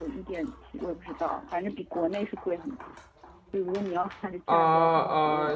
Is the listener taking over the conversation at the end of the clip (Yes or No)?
Yes